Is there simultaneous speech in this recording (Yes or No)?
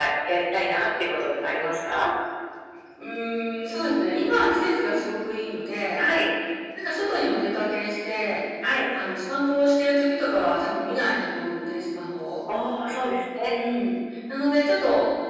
No